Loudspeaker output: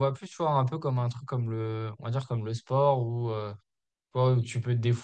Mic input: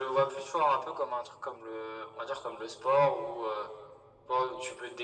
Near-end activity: none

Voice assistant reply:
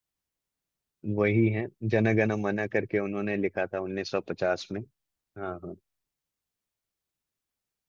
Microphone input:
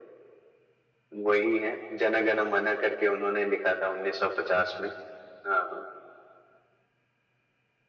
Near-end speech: none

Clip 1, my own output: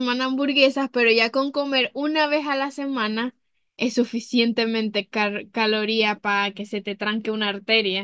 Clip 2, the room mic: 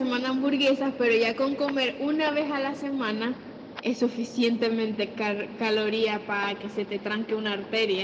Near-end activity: none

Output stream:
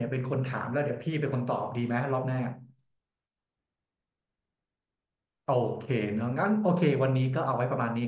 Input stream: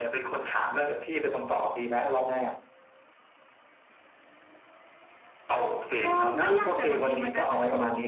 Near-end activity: present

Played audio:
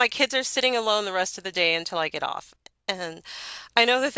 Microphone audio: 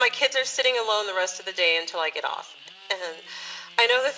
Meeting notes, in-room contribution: none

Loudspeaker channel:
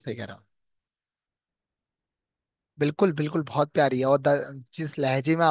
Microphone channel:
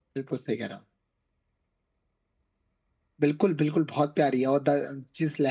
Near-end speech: none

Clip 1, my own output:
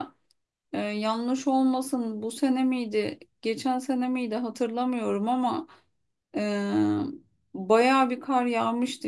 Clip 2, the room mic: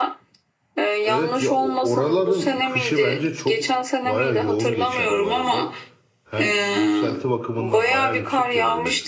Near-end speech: present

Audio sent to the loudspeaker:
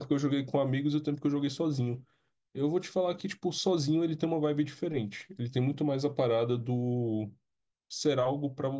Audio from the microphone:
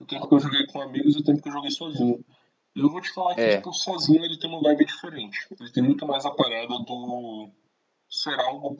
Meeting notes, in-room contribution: present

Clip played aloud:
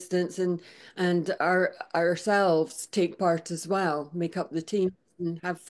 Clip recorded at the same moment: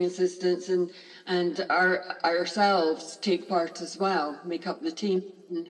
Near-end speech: none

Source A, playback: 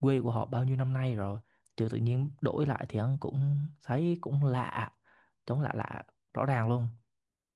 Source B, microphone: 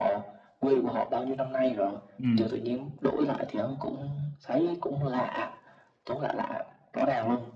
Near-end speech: present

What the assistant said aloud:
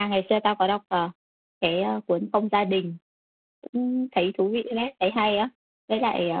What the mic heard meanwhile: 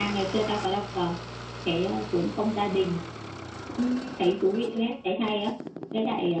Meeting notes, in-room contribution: none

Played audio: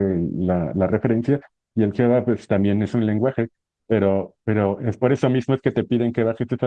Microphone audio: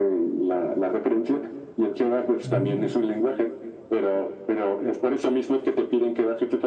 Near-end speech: present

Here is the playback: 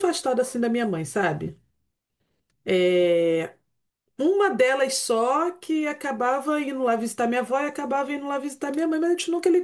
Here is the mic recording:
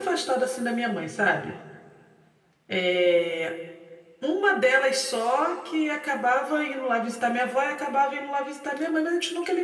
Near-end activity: none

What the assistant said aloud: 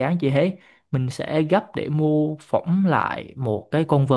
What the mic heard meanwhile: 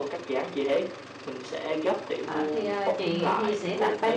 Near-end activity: present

